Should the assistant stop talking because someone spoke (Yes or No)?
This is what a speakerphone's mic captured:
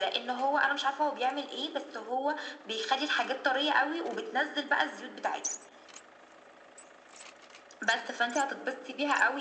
No